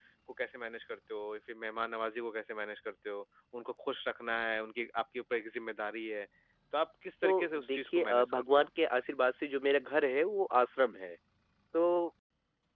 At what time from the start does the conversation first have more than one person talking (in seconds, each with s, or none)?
7.2 s